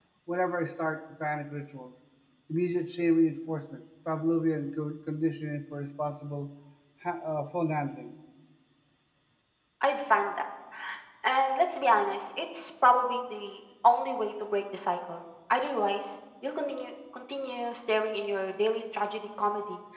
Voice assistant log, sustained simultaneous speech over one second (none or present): none